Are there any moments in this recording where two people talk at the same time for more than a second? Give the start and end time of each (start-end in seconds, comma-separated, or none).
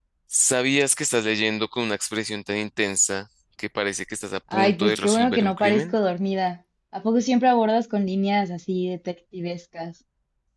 4.5-6.0